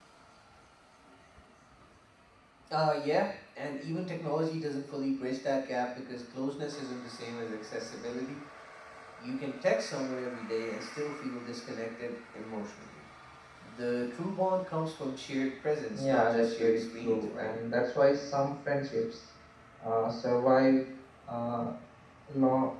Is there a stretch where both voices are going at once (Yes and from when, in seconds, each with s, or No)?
Yes, from 15.9 s